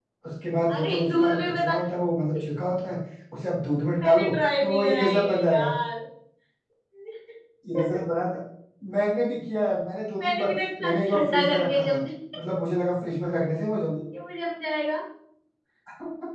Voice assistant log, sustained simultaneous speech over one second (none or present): present